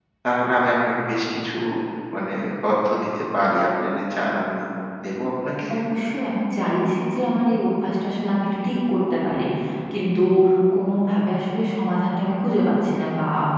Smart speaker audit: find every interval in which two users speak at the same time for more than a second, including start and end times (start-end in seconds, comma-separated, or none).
none